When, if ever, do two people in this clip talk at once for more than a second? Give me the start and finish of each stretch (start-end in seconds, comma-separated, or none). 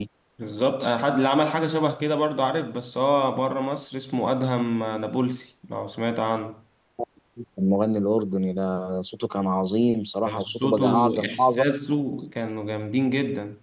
10.2-11.6